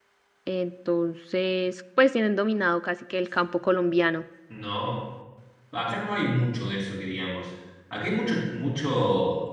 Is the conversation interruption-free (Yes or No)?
Yes